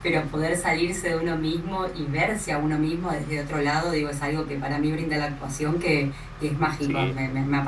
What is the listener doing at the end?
listening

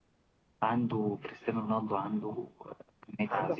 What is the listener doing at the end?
taking over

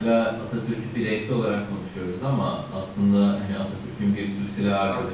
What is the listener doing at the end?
listening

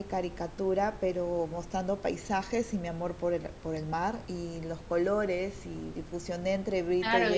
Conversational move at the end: taking over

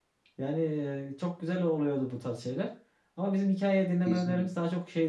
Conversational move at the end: listening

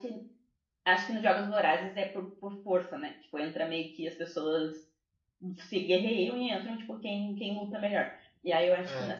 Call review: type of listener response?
listening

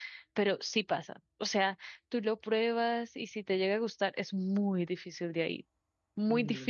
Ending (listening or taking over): listening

